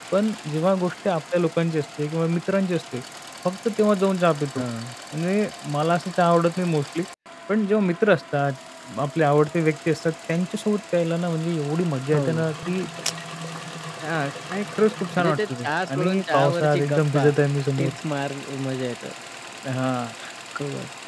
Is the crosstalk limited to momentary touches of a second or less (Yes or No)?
No